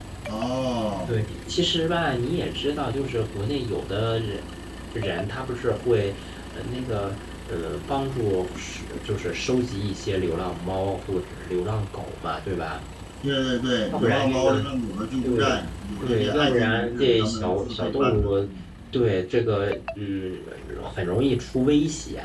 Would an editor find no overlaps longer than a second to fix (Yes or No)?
No